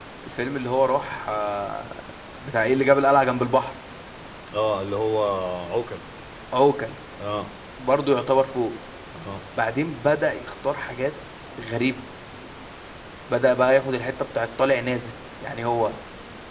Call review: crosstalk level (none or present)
none